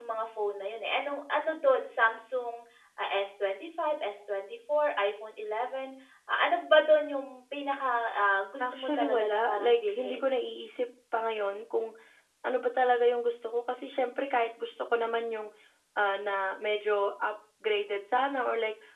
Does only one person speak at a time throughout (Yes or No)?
No